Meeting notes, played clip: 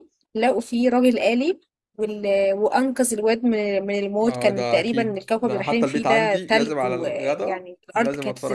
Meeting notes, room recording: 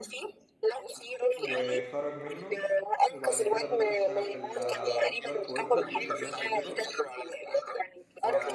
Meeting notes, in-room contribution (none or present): present